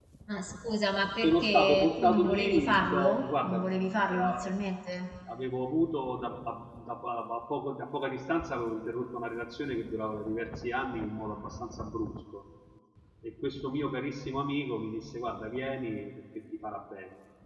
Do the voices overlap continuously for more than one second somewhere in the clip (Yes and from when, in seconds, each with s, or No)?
Yes, from 1.2 s